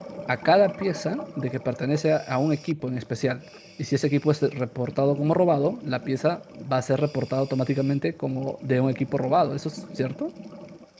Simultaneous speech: No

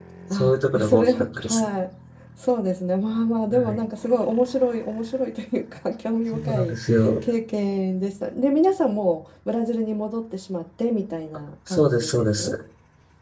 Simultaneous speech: Yes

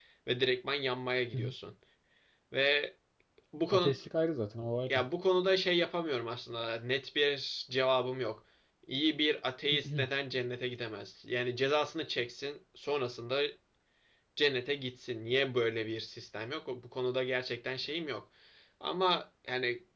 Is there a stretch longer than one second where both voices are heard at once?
No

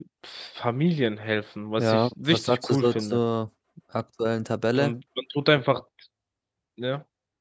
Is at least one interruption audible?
Yes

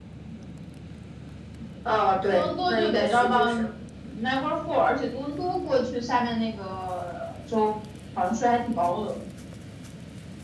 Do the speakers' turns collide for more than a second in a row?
Yes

